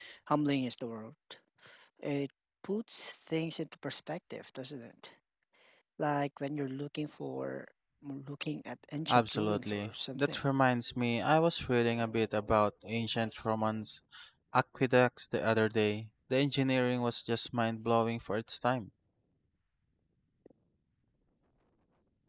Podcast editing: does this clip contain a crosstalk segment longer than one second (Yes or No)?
Yes